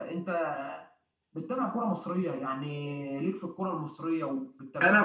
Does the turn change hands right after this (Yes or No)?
Yes